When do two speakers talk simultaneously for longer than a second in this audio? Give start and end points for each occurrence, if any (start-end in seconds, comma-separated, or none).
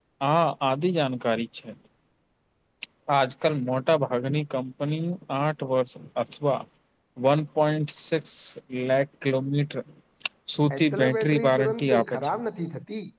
10.7-12.3